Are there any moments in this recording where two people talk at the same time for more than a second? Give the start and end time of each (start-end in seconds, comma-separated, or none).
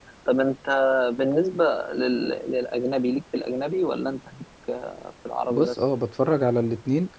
none